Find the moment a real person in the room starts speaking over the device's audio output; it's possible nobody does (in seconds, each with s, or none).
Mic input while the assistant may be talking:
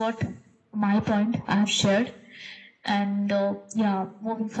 none